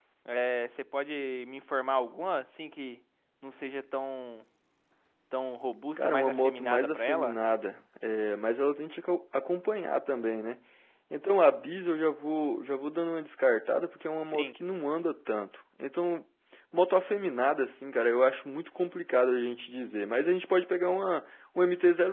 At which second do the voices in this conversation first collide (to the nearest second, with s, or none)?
6 s